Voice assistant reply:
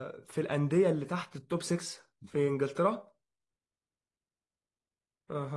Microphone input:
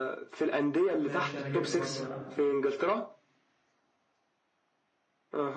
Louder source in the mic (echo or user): echo